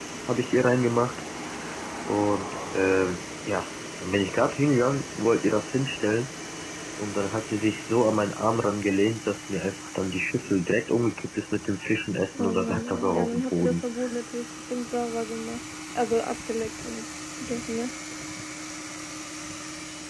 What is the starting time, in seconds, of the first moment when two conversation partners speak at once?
12.3 s

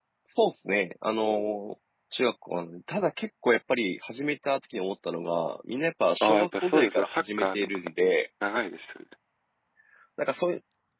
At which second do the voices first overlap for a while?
6.2 s

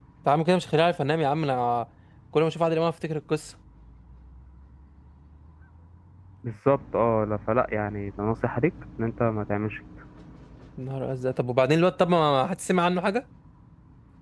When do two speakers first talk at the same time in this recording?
none

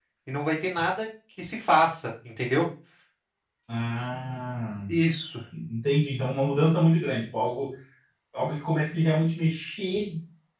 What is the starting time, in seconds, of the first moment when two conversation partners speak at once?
none

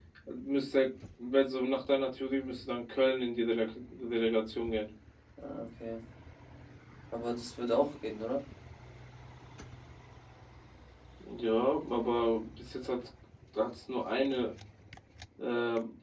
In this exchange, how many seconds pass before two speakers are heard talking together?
none

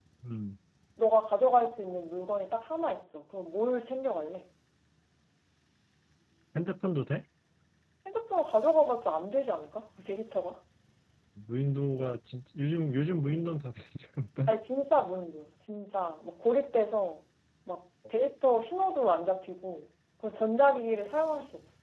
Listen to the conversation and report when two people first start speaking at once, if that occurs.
none

